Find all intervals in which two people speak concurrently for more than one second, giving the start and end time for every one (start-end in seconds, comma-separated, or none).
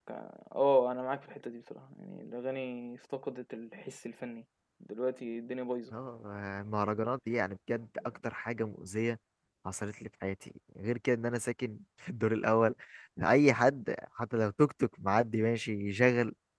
none